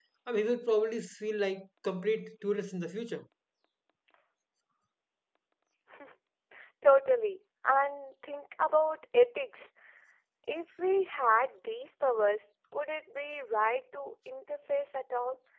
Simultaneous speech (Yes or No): No